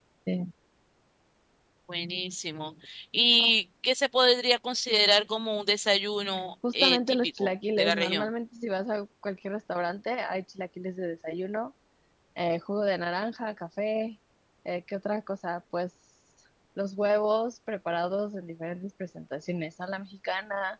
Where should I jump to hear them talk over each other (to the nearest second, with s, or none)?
7 s